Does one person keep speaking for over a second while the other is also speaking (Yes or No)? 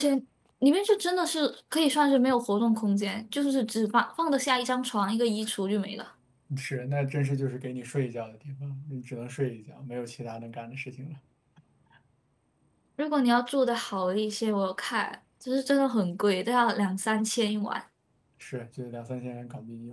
No